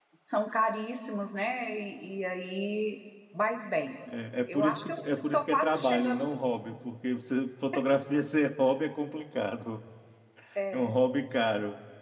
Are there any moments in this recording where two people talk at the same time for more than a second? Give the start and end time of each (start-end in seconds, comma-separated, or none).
4.5-6.2